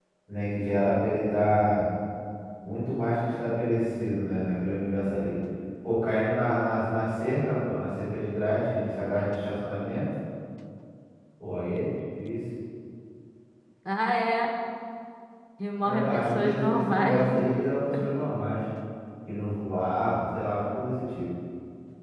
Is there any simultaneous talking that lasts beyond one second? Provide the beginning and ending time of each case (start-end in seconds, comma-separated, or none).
15.8-17.4